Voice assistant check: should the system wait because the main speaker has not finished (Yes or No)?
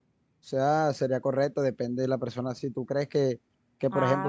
Yes